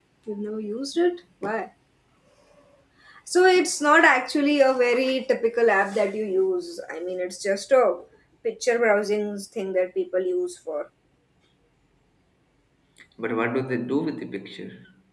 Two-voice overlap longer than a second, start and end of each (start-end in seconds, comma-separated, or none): none